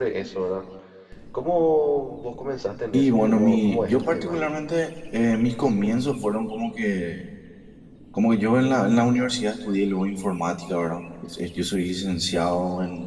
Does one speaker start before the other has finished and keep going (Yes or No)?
Yes